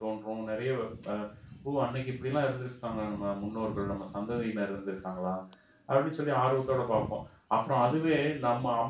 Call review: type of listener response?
listening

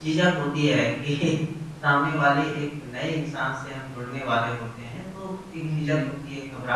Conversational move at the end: listening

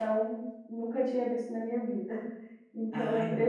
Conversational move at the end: listening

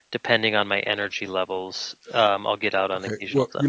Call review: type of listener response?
taking over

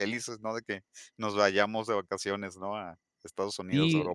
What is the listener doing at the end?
taking over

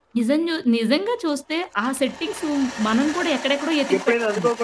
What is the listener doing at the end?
taking over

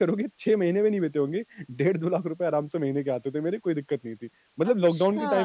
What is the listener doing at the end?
listening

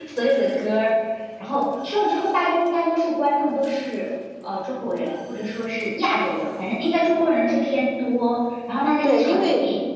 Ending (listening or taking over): taking over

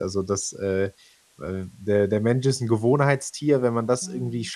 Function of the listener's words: listening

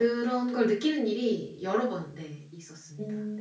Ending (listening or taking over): taking over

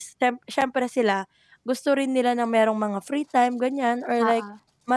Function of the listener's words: listening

